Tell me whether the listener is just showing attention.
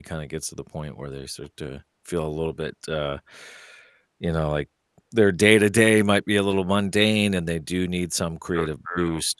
Yes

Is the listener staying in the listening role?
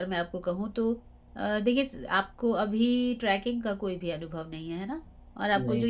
Yes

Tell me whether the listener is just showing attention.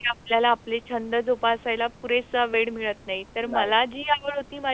Yes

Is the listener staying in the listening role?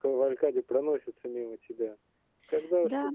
No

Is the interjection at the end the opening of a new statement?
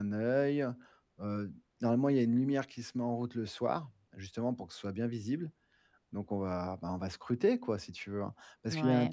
Yes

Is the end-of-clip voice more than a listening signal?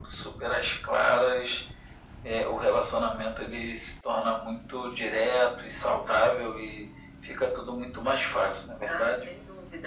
Yes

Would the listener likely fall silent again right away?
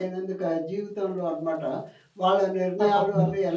Yes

